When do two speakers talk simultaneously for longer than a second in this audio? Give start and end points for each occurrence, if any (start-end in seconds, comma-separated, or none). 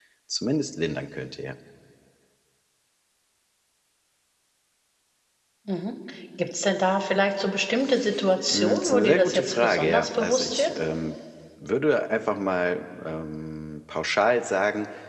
8.5-10.7